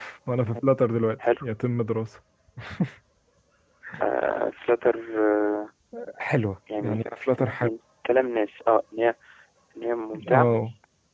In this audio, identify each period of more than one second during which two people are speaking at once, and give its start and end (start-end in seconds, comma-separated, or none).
none